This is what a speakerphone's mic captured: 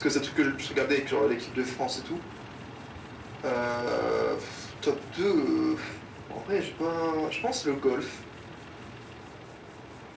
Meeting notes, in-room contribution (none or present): none